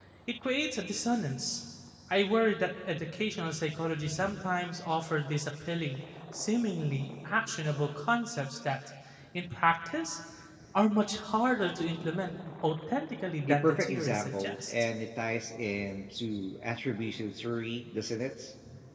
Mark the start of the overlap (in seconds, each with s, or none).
13.5 s